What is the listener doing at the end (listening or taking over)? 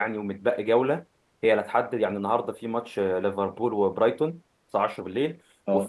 listening